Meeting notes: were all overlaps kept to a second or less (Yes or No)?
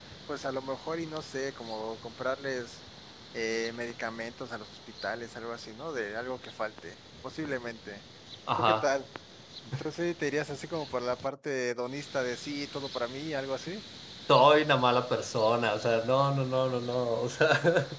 Yes